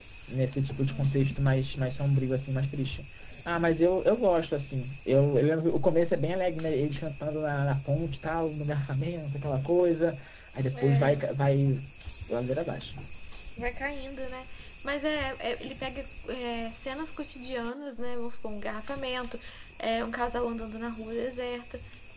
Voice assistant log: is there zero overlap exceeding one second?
Yes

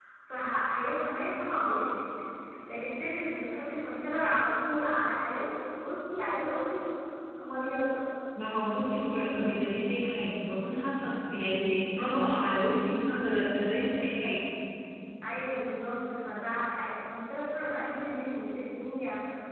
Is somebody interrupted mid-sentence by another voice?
No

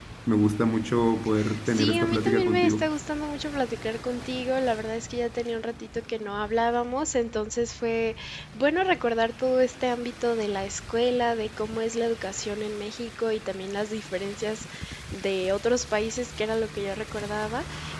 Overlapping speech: Yes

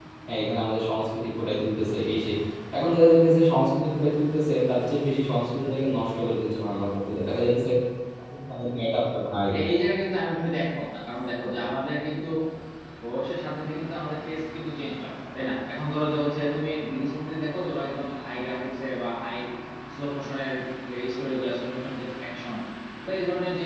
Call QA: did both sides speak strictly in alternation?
Yes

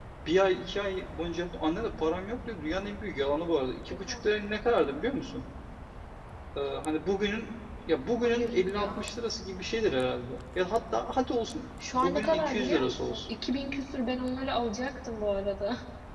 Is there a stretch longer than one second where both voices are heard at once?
Yes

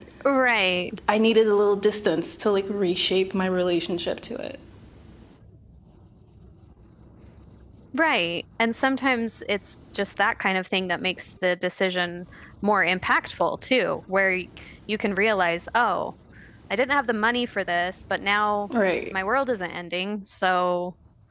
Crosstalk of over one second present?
No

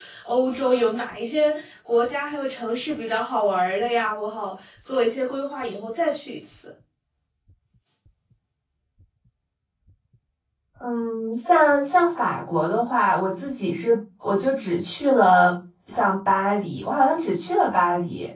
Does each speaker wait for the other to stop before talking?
Yes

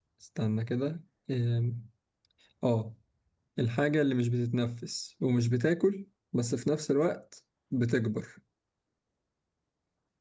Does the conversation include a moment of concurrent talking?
No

